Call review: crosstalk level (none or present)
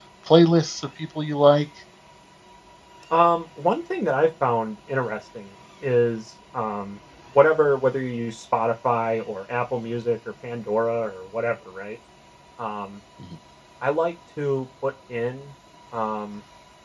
none